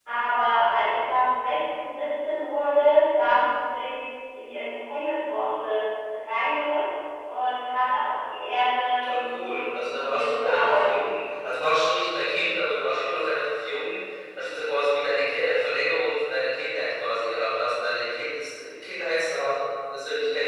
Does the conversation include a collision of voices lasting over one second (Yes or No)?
Yes